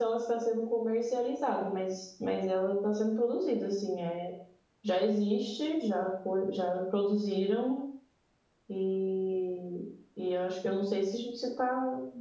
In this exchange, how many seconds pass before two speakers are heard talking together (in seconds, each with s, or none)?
none